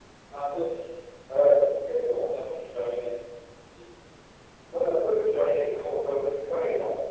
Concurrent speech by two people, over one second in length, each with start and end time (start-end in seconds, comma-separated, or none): none